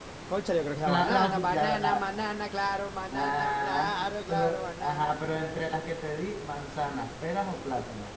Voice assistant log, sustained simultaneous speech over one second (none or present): present